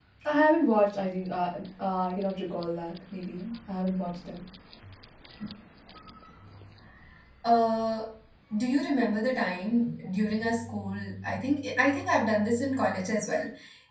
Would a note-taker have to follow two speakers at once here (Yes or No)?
No